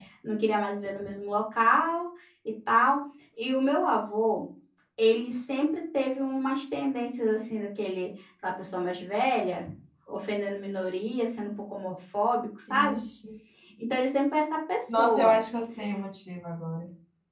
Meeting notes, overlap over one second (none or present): none